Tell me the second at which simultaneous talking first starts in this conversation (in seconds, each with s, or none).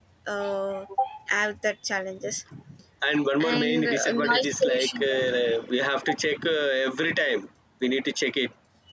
3.4 s